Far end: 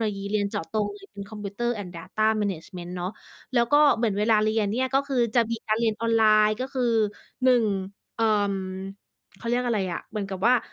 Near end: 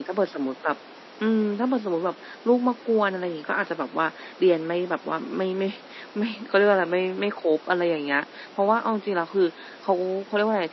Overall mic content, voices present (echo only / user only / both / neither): user only